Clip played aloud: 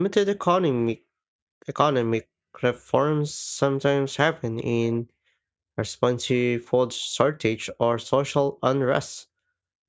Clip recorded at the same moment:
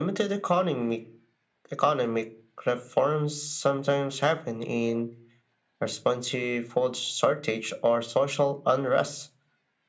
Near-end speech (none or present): none